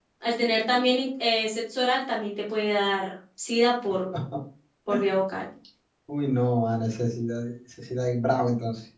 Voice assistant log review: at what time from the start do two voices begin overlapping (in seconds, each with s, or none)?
none